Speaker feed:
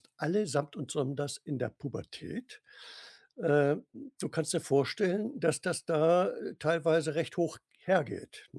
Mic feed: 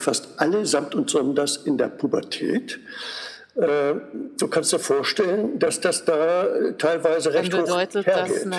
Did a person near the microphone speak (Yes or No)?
Yes